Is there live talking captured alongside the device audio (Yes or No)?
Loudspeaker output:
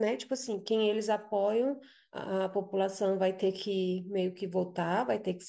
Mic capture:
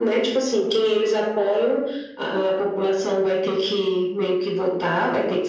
No